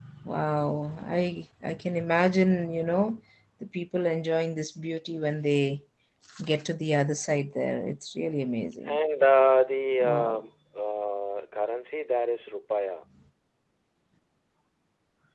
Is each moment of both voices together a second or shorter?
Yes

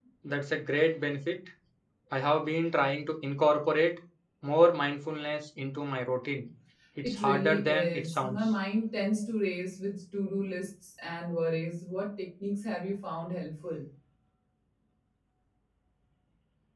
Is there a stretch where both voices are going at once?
Yes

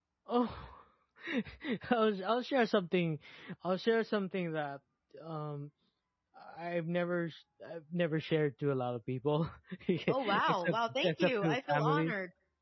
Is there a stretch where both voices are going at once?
Yes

